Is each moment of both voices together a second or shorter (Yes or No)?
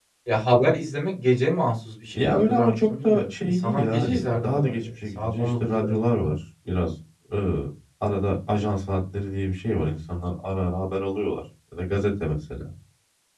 No